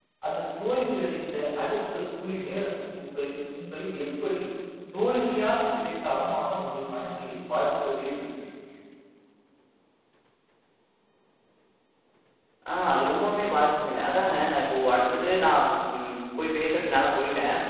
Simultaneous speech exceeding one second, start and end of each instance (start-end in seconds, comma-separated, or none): none